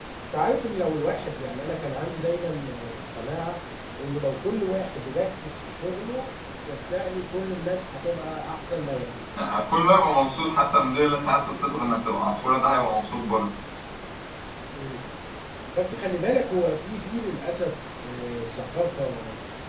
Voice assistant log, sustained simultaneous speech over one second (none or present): none